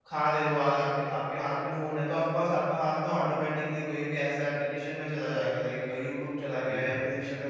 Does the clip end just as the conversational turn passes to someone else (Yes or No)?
No